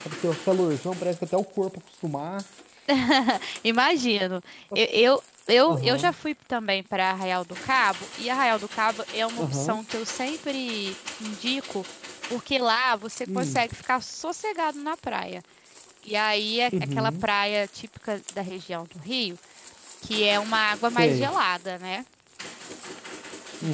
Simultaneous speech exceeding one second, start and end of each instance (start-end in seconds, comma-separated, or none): none